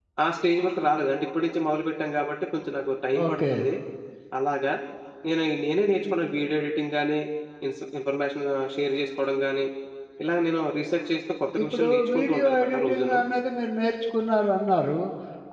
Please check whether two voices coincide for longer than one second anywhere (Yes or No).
Yes